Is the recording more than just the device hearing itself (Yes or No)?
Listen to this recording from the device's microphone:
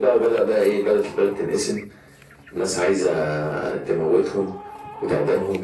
No